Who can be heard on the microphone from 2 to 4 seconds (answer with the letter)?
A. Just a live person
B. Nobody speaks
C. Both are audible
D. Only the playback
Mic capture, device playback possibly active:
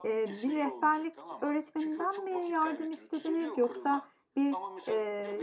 C